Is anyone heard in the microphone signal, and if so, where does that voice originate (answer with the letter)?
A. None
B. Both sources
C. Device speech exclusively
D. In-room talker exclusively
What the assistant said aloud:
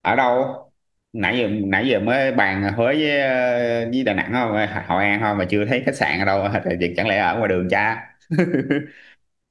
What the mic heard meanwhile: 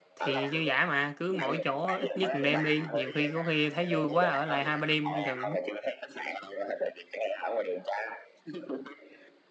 B